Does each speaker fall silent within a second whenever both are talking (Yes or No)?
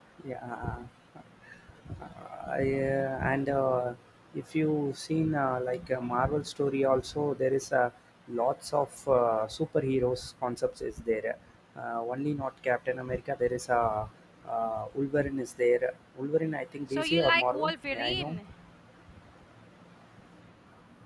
No